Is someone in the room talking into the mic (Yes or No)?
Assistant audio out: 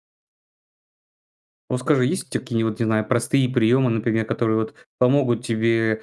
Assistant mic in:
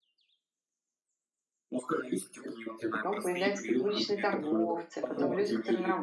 Yes